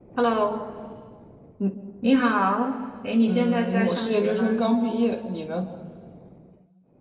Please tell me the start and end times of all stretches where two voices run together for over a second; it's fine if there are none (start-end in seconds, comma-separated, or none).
3.3-4.6